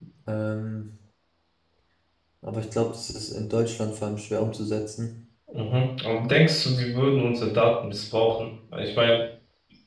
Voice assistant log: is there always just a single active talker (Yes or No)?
Yes